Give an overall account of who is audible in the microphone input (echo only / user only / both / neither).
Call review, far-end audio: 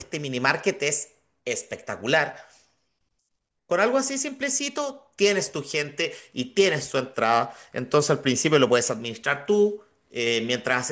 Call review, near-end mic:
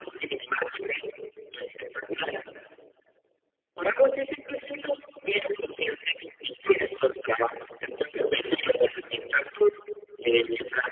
echo only